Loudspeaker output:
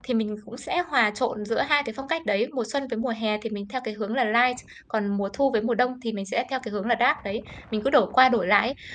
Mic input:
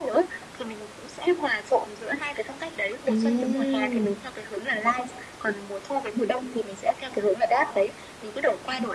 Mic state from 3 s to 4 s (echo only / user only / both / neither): both